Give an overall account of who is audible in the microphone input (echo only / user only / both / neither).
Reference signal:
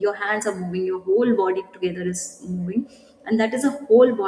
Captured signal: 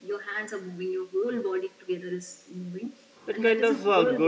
both